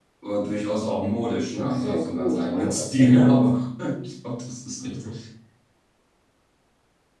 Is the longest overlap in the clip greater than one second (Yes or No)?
Yes